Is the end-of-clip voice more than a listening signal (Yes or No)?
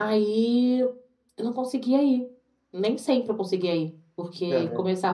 No